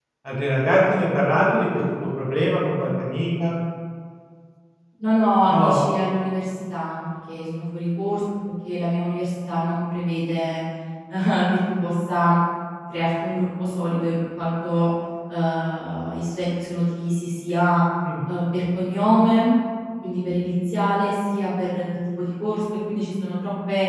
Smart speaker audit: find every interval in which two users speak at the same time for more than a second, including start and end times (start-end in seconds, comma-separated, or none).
none